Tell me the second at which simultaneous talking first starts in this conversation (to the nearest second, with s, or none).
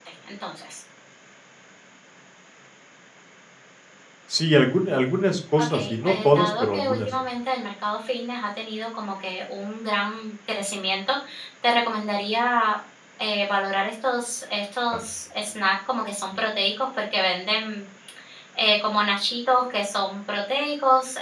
6 s